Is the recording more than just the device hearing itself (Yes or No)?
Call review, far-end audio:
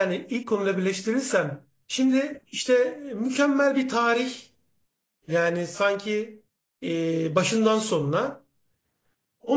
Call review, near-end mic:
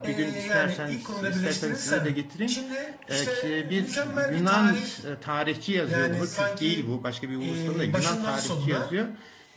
Yes